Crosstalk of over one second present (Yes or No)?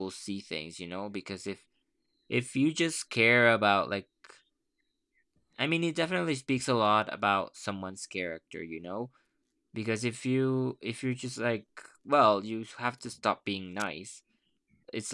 No